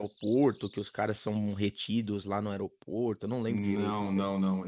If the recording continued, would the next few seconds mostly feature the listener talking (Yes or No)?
Yes